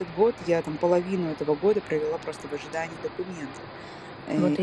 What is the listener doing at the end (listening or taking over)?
listening